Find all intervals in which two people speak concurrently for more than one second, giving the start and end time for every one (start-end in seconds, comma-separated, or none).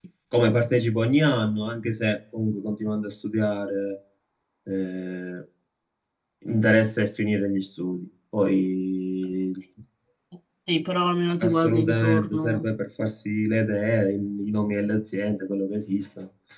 11.4-12.7